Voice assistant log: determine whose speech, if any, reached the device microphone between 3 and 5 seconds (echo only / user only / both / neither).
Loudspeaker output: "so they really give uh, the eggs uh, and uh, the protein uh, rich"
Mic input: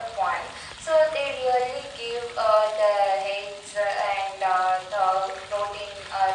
echo only